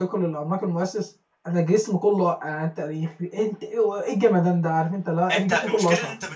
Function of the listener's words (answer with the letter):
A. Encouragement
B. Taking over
B